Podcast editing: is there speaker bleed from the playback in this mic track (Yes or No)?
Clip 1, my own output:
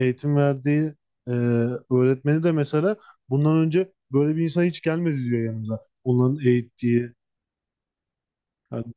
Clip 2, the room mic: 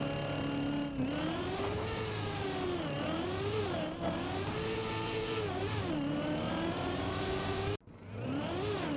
No